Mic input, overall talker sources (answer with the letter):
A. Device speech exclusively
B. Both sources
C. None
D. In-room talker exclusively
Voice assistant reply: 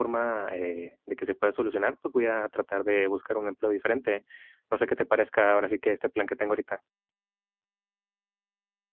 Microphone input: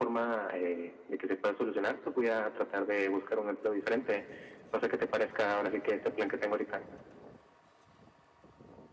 A